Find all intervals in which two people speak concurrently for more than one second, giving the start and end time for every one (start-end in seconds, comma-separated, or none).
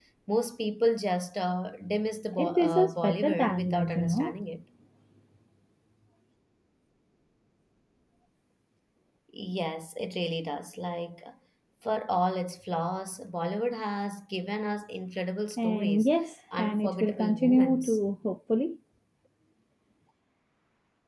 2.4-4.4, 16.6-18.0